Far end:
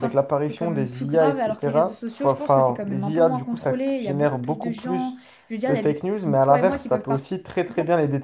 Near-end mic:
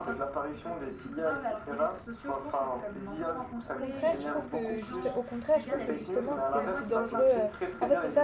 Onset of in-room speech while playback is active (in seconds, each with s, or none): 3.8 s